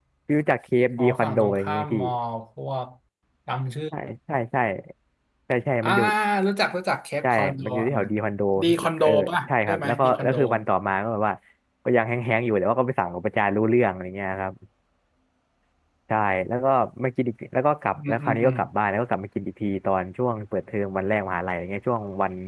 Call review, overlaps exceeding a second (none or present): present